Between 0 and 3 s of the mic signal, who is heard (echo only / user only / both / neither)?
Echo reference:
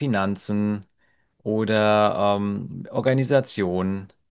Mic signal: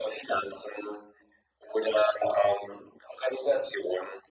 echo only